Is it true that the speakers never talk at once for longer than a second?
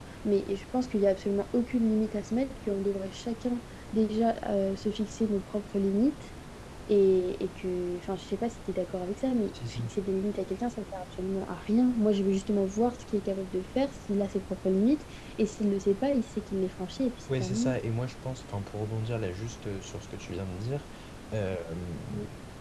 Yes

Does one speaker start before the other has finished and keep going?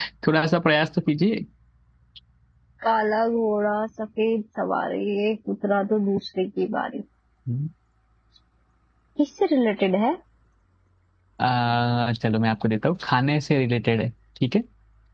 No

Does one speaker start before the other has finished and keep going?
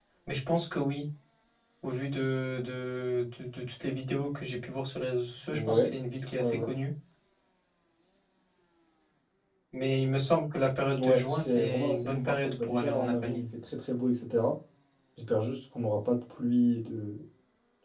Yes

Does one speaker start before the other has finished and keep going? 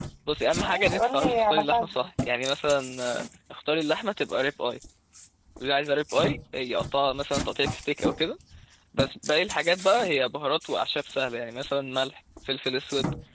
Yes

